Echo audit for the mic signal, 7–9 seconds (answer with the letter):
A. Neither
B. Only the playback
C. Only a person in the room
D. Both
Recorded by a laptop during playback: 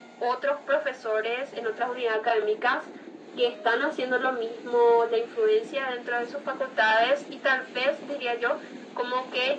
B